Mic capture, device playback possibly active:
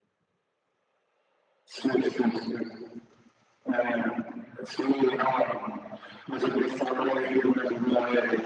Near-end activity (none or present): none